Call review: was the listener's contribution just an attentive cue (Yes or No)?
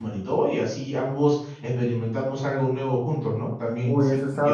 No